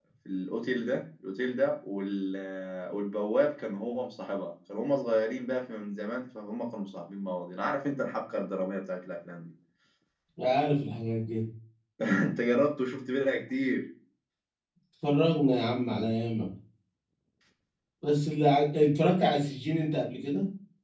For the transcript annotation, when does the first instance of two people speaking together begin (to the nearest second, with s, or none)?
none